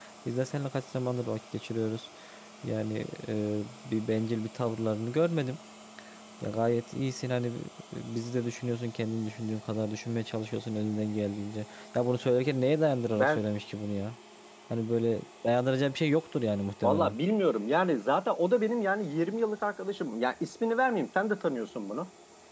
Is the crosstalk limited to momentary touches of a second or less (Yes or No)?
Yes